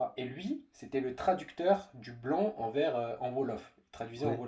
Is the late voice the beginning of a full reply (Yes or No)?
No